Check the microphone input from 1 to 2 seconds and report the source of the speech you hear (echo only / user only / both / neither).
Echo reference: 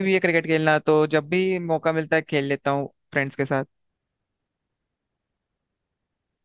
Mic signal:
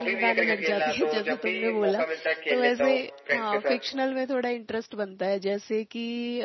both